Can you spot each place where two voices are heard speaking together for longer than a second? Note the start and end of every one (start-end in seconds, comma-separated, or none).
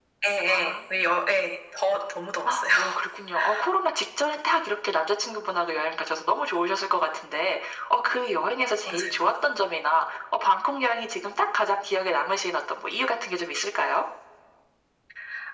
none